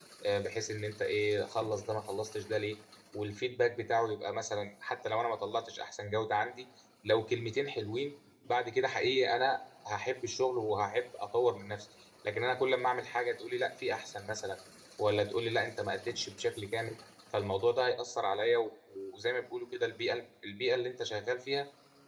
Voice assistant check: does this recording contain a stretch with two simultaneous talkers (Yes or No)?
No